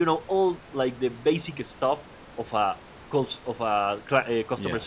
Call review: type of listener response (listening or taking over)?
listening